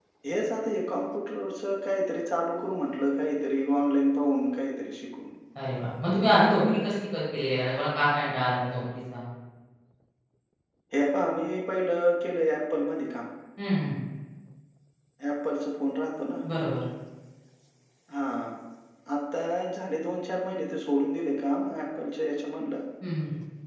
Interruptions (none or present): none